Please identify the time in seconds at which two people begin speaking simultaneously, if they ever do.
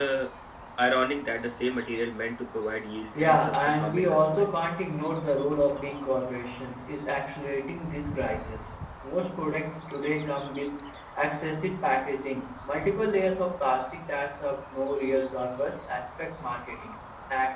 3.1 s

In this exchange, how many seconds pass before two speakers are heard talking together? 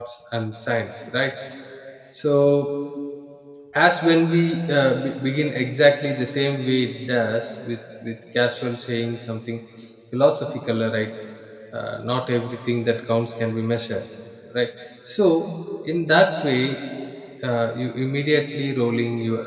none

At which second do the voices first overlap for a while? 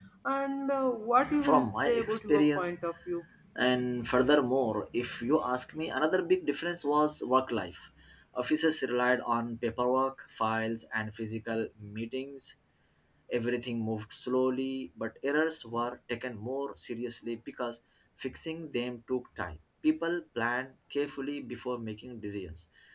1.2 s

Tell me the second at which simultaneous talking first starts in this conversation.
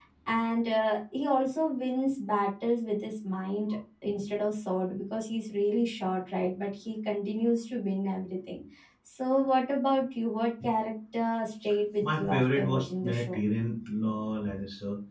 12.0 s

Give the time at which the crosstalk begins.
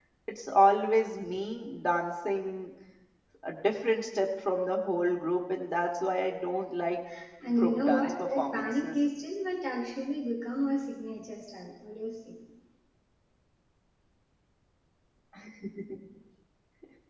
7.6 s

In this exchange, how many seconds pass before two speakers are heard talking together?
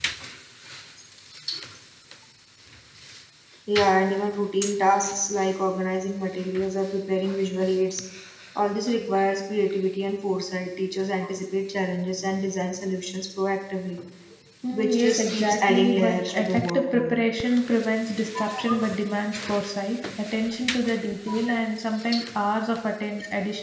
14.7 s

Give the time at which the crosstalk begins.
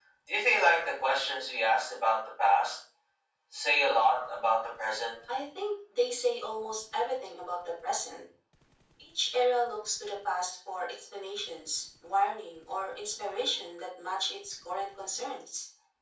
none

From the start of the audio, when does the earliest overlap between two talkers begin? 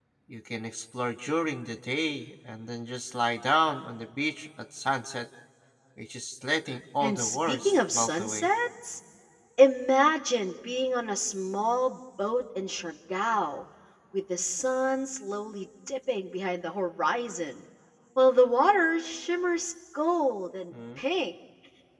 7.0 s

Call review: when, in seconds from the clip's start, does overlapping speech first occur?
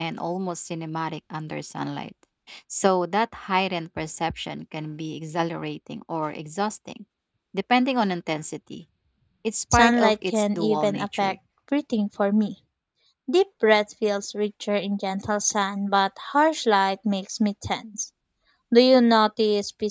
9.7 s

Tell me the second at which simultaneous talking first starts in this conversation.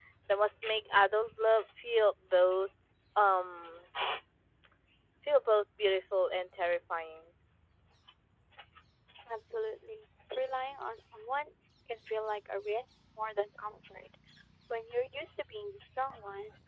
none

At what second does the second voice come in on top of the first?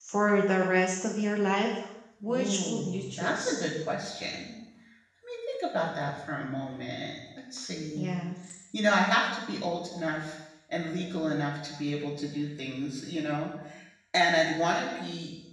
2.3 s

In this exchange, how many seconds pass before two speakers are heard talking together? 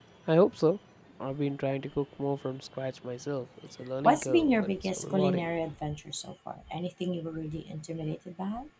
4.0 s

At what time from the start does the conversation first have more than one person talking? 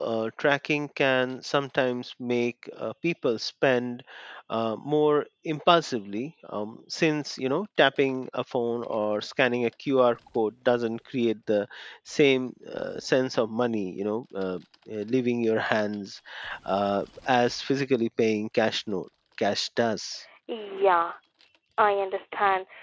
none

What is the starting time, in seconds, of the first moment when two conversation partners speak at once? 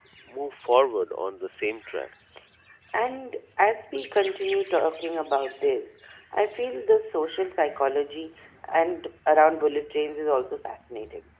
none

